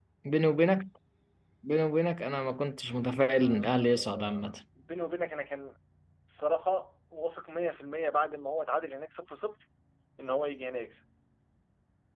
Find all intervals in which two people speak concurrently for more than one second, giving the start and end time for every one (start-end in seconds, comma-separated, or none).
3.2-4.5